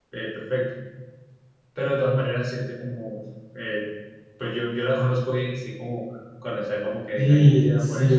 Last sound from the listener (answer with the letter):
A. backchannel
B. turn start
B